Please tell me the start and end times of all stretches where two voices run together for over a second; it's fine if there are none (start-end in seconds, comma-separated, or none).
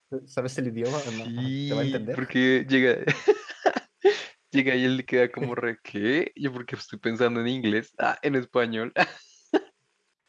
0.8-2.2